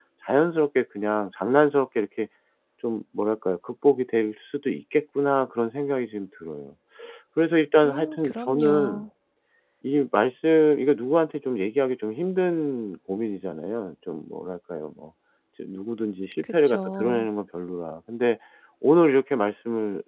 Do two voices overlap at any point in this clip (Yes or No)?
Yes